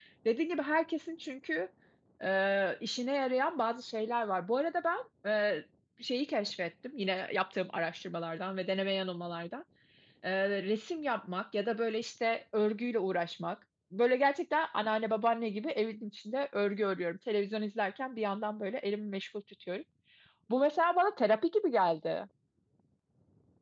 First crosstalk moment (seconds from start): none

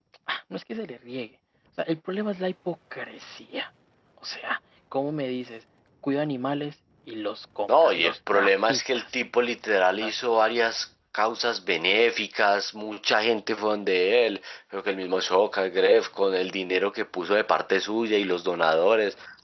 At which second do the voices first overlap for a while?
8 s

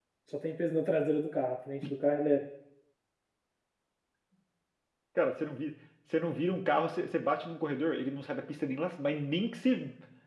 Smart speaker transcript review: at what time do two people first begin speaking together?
none

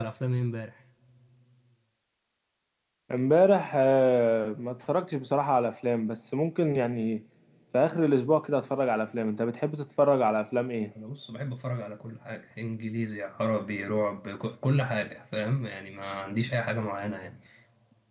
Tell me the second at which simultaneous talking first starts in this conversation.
none

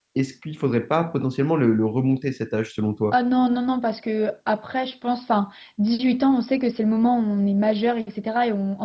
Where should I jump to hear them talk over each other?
none

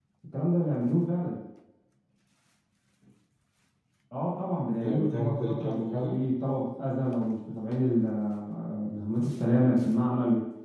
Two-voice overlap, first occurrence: 5 s

